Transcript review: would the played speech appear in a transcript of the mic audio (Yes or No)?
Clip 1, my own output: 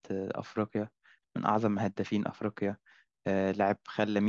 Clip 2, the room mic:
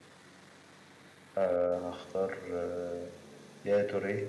No